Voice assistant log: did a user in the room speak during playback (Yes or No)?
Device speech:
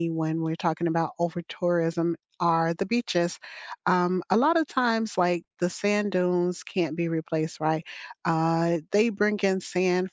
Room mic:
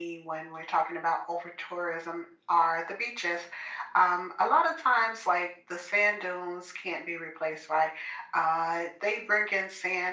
No